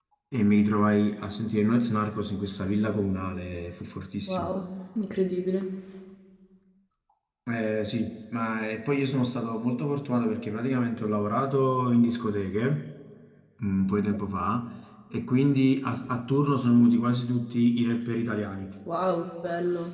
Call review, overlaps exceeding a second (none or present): none